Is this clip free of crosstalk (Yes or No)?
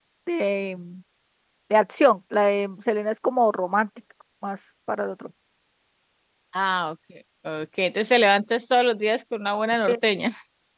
Yes